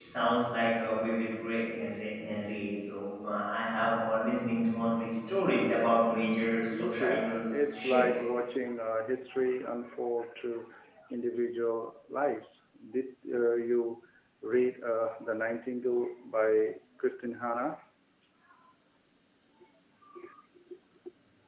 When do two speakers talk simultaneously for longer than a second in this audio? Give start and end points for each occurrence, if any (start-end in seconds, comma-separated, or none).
6.7-8.2